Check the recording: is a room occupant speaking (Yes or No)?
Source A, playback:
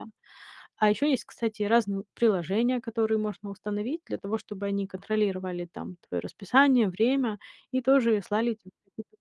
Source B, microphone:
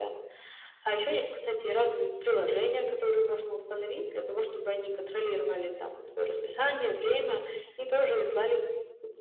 No